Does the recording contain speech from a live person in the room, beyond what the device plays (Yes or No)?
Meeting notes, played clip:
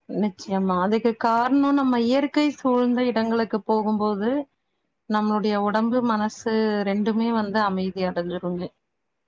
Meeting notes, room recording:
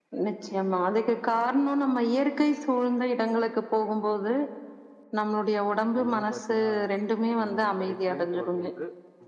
Yes